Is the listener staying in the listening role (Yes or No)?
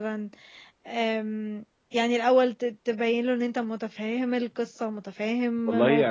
No